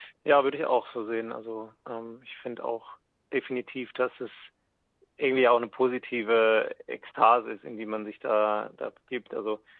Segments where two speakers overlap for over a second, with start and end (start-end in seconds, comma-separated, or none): none